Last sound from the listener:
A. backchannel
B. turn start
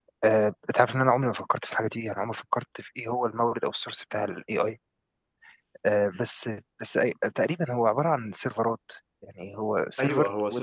B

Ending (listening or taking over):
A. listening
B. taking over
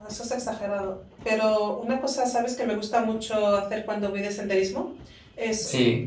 A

